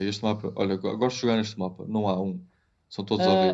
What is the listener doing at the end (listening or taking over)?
taking over